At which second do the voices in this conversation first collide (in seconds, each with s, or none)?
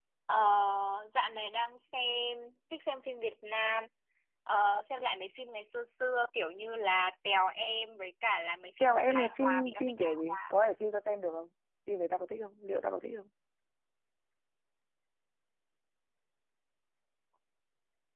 8.8 s